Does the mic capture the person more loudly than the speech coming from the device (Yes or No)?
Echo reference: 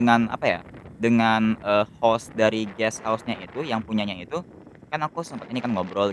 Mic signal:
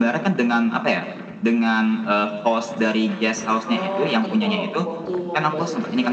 No